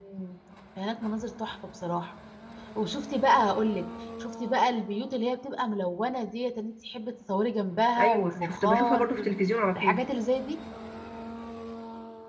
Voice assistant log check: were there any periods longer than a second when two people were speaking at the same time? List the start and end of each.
8.0-9.3

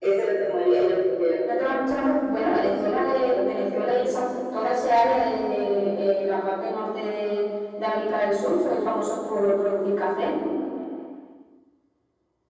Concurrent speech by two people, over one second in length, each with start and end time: 2.5-4.3

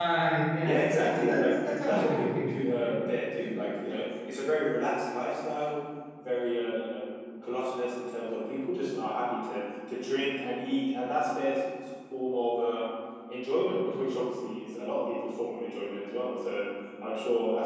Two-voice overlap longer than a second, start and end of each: 0.6-2.9

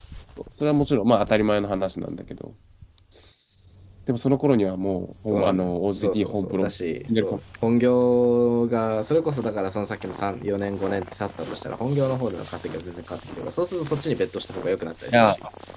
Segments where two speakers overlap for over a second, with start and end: 5.3-6.7

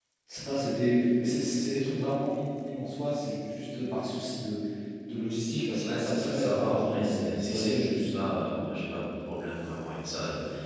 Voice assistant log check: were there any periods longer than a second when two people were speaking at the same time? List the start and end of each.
5.8-7.8

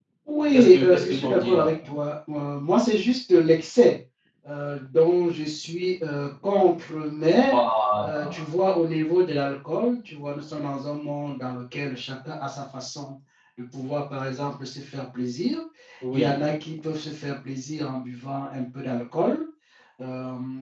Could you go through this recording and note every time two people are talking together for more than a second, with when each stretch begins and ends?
0.5-1.7

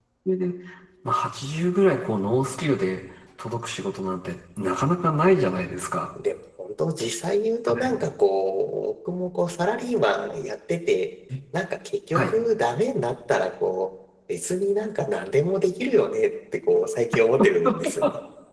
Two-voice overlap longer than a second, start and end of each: none

